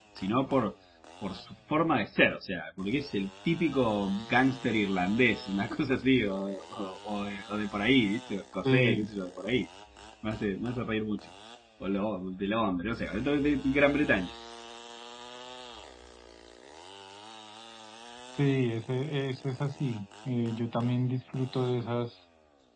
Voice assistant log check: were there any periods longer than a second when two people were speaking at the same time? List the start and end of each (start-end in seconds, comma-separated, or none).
none